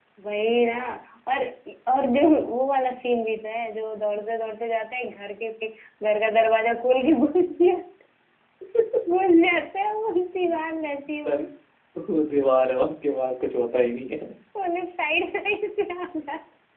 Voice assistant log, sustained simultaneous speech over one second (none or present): none